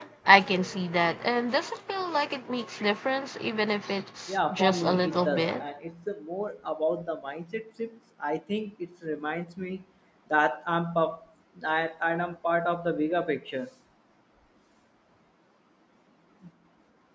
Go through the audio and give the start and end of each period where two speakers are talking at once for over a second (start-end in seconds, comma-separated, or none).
4.3-5.6